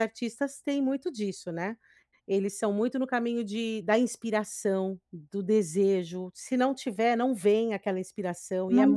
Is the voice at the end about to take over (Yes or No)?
No